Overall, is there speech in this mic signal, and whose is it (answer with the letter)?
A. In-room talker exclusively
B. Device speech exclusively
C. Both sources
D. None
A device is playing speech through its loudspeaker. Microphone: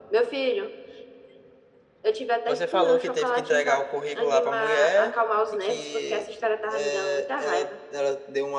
B